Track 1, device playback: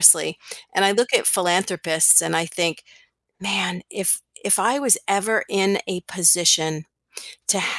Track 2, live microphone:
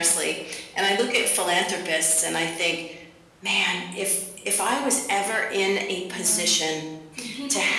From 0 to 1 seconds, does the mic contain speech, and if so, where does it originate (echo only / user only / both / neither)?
echo only